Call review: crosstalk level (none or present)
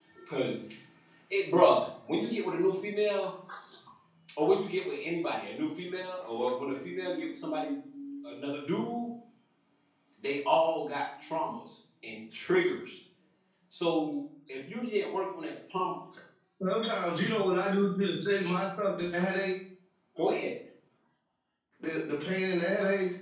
none